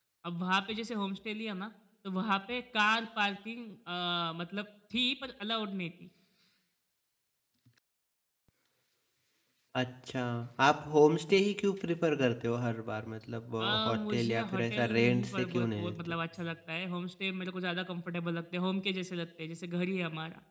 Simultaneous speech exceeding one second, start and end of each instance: 13.6-16.2

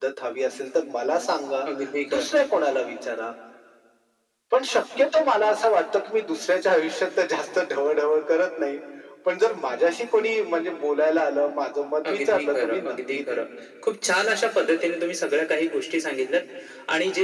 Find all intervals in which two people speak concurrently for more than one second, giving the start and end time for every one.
12.1-13.4

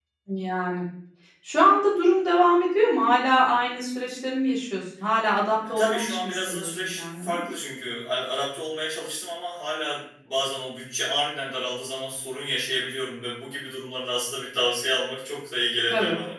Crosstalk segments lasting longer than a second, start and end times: 5.7-7.4

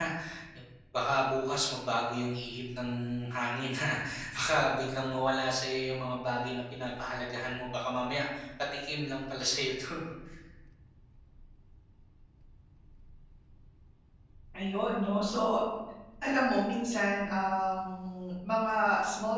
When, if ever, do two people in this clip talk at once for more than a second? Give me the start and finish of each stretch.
none

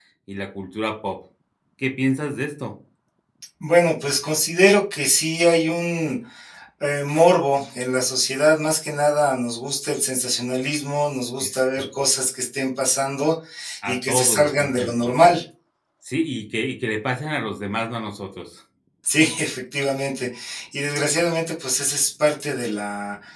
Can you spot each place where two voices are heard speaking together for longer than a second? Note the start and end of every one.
13.9-15.1

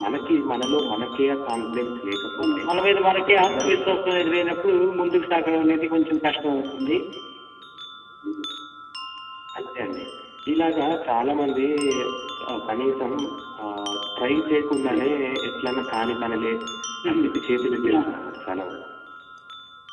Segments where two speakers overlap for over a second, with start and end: 3.2-4.5

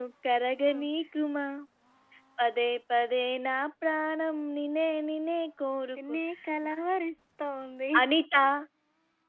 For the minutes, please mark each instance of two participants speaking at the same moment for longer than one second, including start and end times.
none

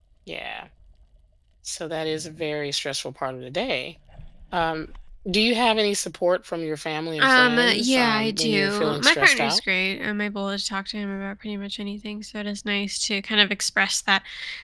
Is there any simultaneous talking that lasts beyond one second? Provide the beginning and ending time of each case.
7.2-9.6

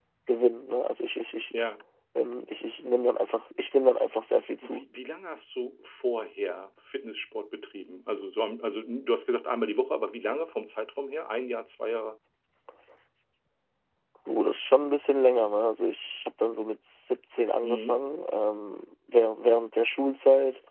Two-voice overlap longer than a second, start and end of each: none

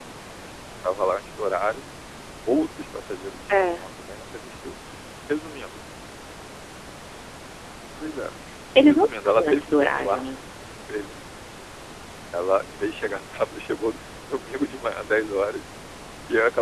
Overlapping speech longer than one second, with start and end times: 8.9-10.2

